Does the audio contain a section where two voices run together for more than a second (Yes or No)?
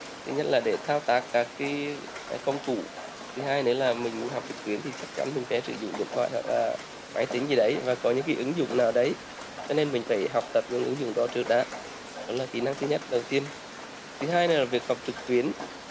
No